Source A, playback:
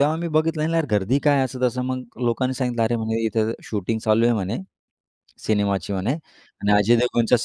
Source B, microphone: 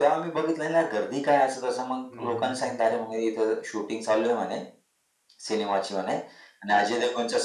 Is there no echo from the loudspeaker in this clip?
No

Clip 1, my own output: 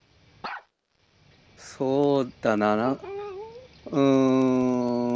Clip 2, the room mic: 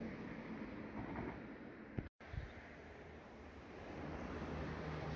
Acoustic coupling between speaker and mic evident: No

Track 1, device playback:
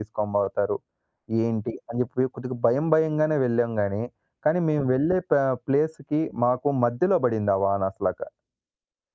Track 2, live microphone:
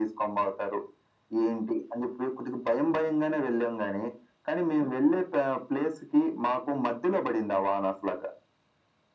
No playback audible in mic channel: No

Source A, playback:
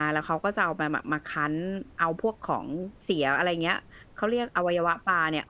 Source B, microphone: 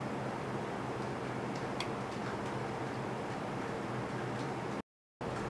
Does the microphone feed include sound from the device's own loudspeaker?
No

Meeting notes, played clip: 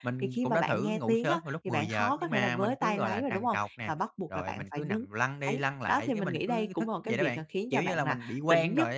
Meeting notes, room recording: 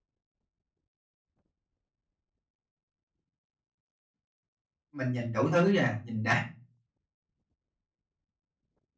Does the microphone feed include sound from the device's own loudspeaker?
No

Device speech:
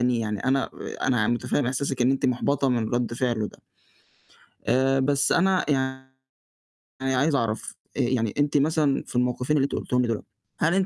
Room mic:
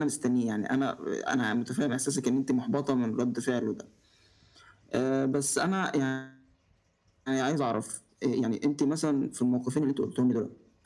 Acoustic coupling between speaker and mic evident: Yes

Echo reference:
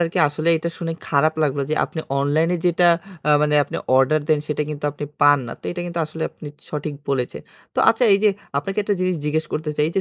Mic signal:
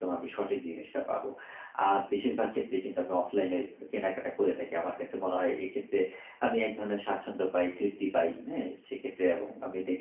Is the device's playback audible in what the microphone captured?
No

